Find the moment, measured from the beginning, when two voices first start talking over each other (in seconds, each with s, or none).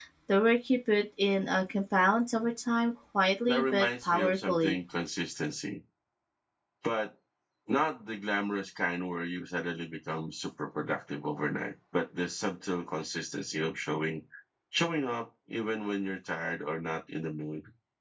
3.5 s